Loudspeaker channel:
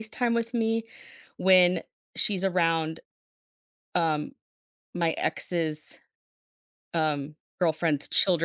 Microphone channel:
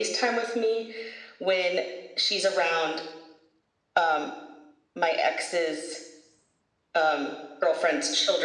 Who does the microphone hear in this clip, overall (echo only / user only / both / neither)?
echo only